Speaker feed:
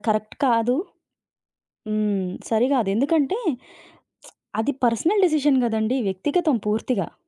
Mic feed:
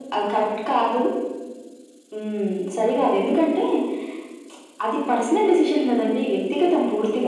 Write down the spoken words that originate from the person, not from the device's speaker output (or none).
none